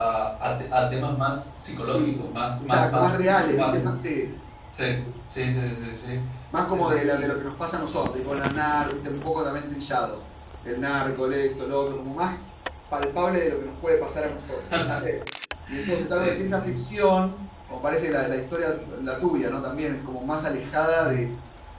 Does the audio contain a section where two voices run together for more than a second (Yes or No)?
Yes